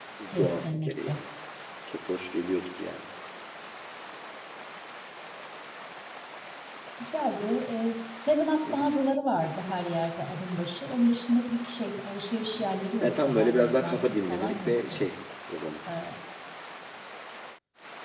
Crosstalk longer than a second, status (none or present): present